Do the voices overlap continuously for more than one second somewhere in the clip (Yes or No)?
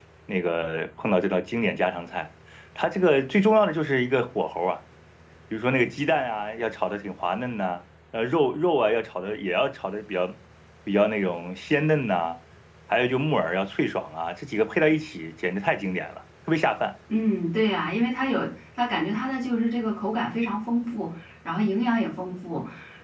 No